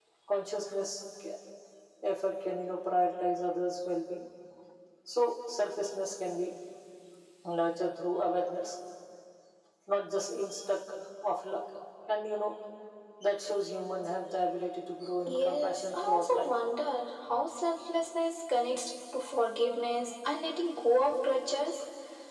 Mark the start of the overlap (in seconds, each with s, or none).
15.3 s